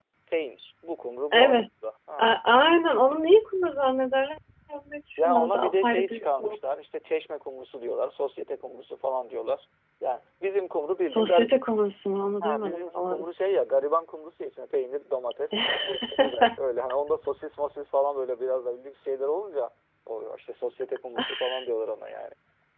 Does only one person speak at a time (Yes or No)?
No